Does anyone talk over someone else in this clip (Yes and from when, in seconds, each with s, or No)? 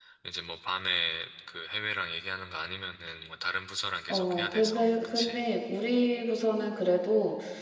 Yes, from 4.1 s